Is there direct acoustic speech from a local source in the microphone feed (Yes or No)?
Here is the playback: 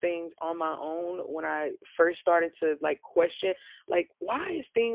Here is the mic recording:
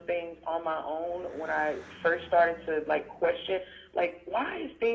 No